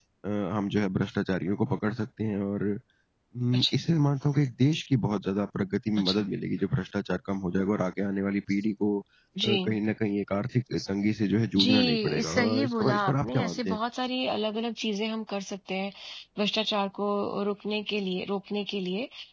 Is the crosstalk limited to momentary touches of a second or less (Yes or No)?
No